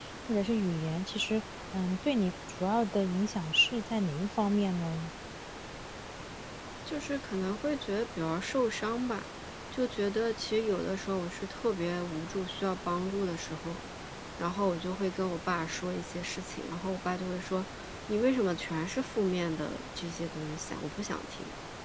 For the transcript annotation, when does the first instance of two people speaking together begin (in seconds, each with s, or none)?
none